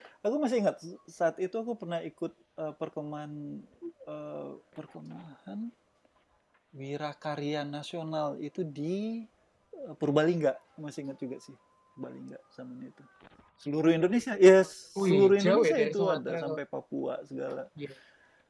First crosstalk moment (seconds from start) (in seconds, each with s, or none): 15.0 s